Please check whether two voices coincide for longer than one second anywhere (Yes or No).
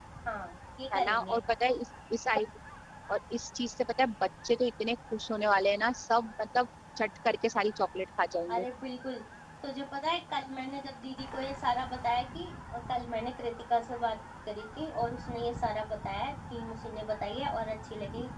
No